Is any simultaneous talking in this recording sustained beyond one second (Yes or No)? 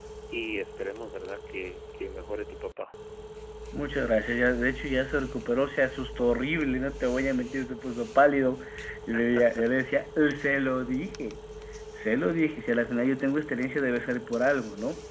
No